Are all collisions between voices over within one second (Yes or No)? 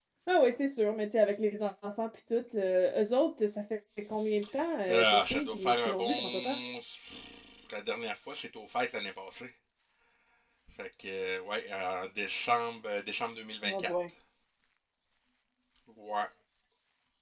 No